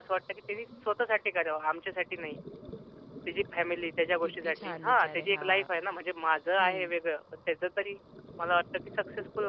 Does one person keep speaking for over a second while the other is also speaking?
Yes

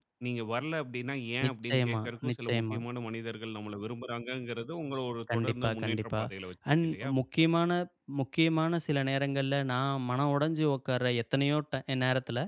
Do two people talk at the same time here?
Yes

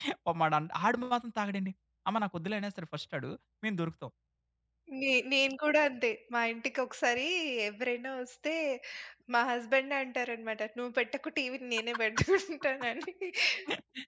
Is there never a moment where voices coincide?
Yes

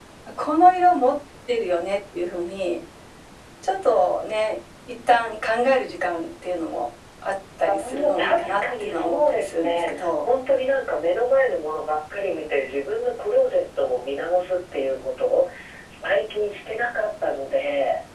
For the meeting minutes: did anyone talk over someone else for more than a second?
Yes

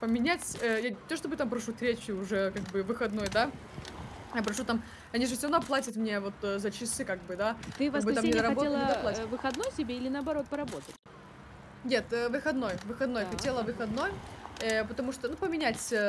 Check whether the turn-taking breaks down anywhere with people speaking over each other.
Yes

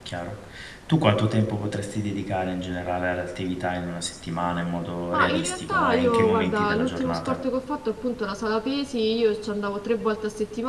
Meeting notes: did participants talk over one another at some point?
Yes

